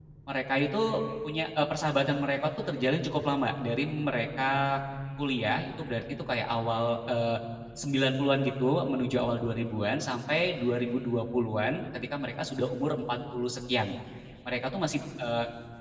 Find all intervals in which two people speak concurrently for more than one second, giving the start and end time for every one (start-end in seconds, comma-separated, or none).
none